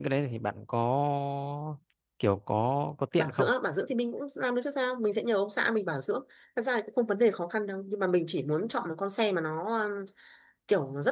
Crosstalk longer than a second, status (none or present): none